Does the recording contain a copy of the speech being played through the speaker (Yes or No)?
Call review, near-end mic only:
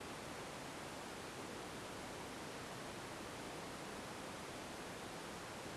No